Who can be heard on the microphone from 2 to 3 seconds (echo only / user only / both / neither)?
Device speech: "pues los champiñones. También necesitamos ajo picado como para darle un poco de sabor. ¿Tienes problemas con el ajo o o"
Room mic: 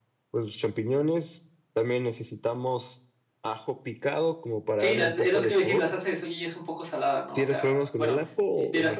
echo only